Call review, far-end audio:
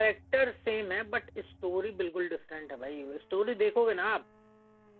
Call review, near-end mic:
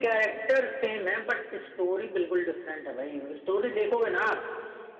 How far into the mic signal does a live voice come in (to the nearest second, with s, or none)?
none